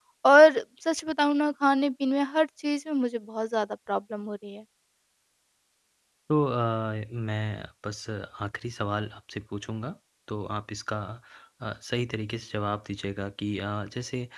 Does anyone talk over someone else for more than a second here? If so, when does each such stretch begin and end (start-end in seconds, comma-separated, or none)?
none